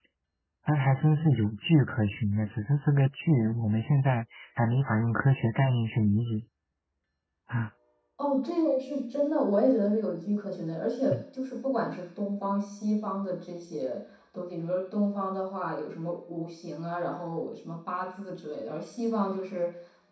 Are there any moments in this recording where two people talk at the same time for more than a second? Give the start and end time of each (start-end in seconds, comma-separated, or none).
none